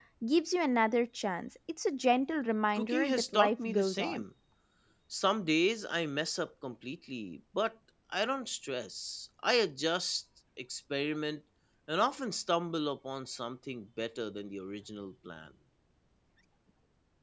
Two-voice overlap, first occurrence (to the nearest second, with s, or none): 3 s